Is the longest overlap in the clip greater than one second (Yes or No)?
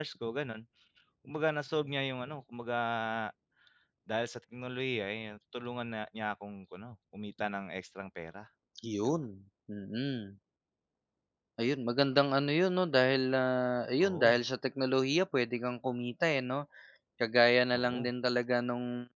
No